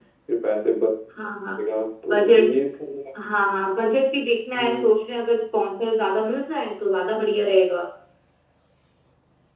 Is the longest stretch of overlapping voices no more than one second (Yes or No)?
Yes